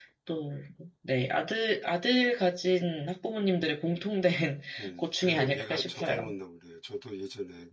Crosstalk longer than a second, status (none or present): present